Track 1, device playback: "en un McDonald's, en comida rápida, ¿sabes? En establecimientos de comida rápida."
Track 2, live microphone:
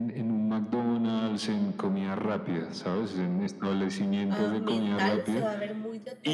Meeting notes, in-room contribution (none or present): present